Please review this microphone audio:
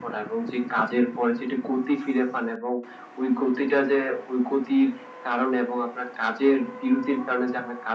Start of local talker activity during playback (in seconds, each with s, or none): none